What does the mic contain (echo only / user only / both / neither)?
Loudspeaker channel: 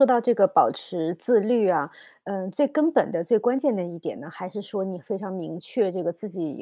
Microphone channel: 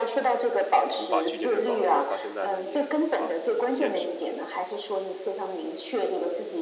both